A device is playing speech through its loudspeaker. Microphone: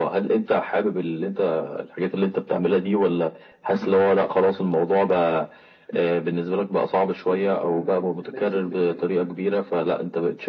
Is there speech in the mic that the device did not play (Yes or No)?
Yes